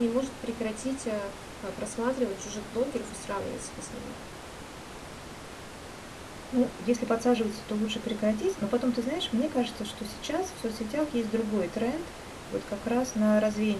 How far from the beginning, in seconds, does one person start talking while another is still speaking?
none

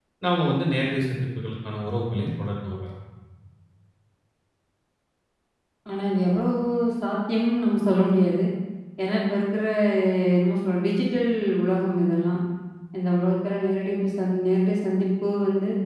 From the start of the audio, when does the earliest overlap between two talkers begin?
none

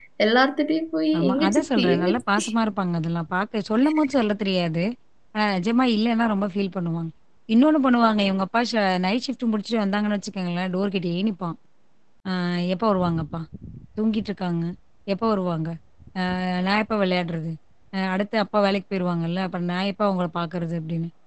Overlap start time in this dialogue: 1.2 s

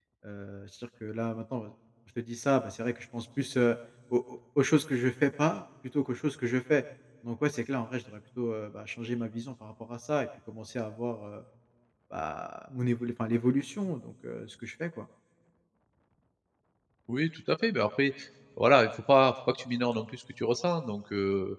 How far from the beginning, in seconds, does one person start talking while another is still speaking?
none

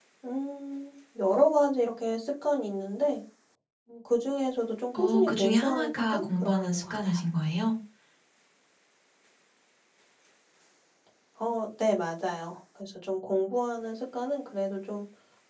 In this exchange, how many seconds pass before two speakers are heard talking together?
4.9 s

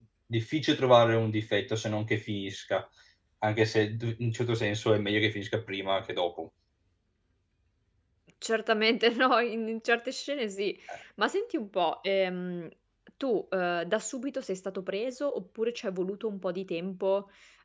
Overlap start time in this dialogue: none

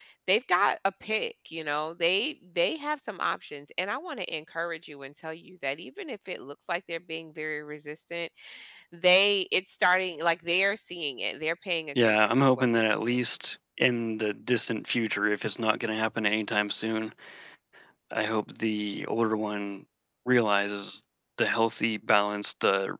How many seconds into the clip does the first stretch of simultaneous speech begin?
11.9 s

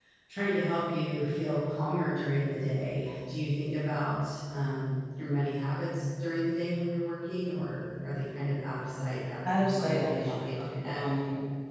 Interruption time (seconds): 9.4 s

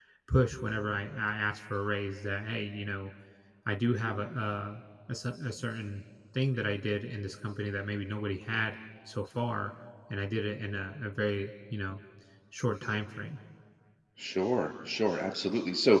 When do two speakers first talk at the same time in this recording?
none

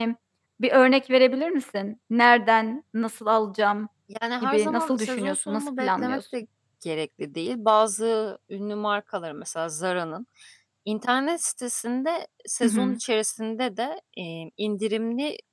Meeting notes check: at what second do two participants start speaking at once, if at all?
4.4 s

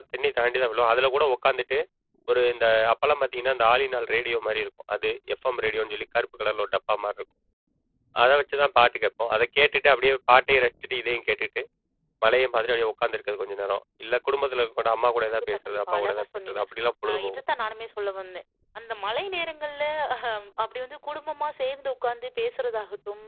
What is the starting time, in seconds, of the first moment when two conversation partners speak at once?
15.3 s

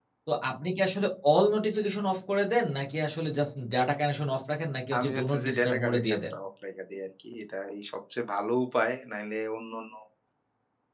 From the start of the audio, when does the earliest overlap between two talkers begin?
4.9 s

